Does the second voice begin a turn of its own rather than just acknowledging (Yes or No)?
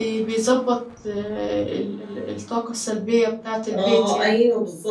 Yes